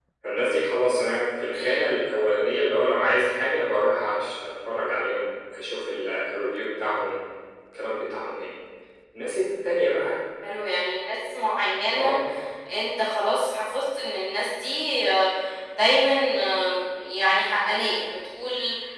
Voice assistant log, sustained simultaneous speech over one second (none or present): none